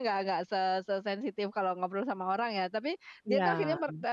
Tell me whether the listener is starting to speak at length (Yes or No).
No